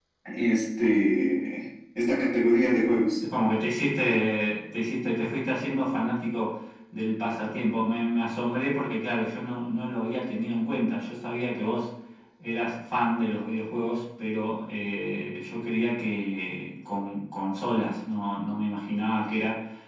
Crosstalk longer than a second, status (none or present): none